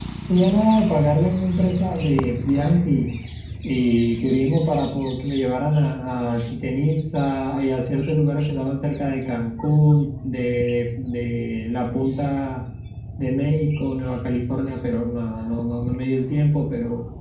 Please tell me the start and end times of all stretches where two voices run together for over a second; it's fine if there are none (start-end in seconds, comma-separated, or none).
none